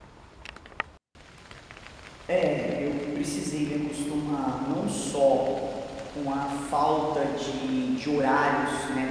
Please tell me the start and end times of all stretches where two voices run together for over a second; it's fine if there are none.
none

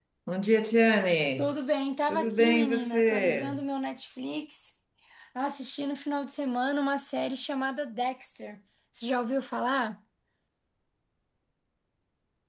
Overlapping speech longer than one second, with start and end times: 2.1-3.6

